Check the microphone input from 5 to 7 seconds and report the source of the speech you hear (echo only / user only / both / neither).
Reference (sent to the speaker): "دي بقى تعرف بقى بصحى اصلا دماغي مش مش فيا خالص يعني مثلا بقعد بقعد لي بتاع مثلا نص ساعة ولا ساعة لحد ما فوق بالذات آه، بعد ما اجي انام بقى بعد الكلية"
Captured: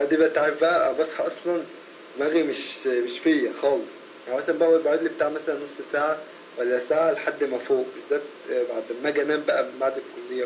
echo only